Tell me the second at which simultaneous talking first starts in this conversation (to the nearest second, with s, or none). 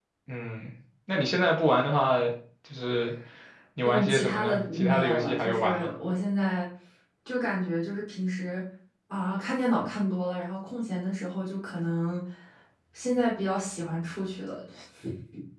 4 s